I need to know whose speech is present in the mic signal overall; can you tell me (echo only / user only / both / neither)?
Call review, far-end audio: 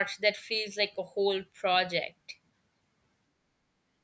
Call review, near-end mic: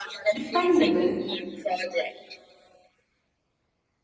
both